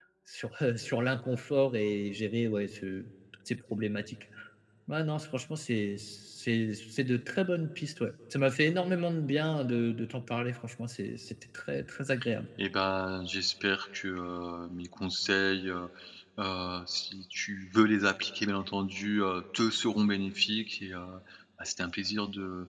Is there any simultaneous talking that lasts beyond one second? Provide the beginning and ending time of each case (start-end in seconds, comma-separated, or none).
none